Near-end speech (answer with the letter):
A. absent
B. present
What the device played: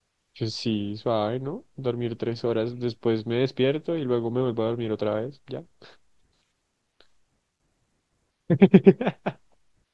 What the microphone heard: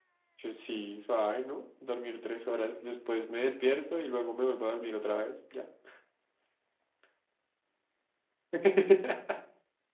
A